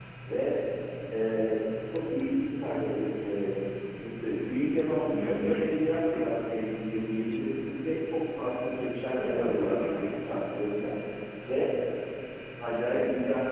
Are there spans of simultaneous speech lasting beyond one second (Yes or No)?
Yes